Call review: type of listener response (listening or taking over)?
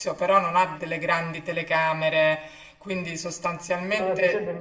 taking over